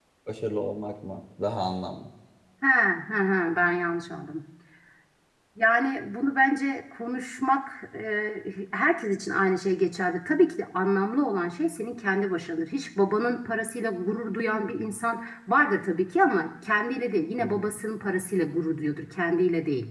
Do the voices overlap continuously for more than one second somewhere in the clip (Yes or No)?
No